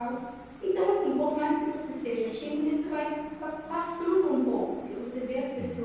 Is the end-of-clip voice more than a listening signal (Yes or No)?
No